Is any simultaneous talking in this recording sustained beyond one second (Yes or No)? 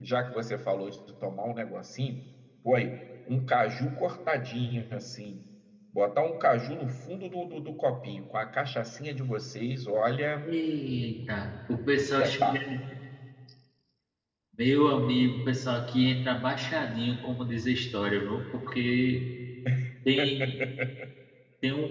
No